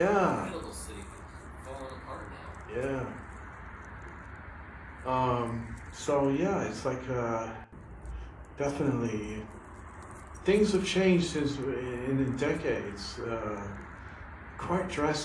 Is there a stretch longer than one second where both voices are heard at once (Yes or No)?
No